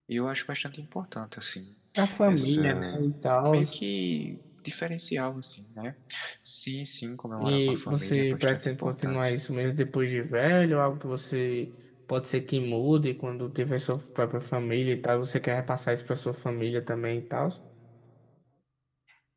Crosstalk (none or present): present